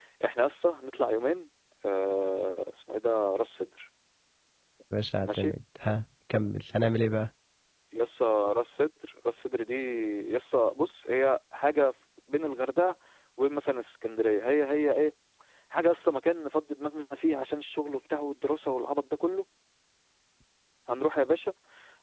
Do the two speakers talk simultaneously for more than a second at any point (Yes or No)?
No